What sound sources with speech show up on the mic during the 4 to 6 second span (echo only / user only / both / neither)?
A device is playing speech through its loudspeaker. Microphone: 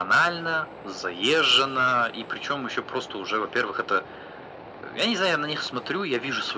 echo only